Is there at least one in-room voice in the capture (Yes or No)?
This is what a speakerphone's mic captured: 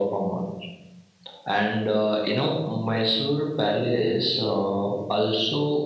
No